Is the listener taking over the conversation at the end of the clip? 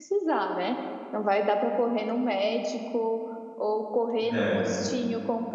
No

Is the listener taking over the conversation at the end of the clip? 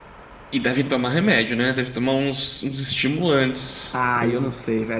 Yes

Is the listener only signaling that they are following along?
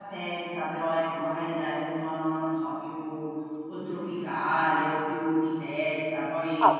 No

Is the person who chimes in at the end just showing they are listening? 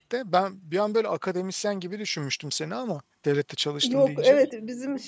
No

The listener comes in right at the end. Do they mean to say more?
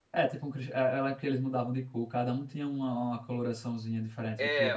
Yes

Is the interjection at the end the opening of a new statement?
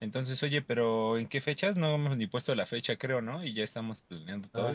Yes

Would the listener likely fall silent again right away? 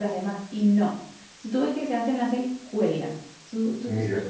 Yes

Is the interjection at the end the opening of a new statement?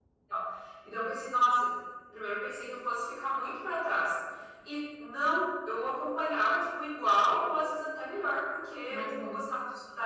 No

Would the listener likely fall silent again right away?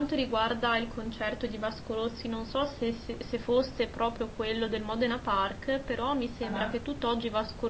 Yes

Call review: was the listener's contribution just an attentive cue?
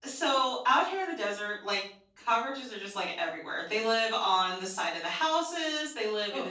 Yes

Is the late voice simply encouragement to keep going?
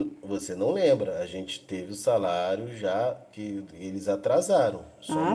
No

